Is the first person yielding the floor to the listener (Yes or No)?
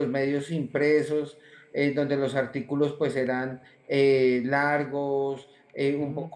No